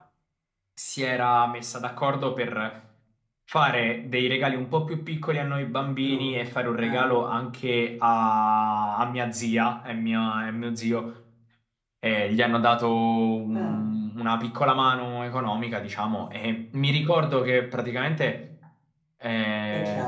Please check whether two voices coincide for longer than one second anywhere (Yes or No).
No